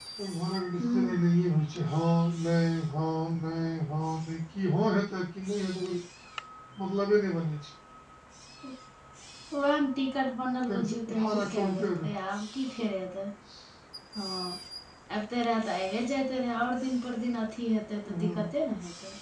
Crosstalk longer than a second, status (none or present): present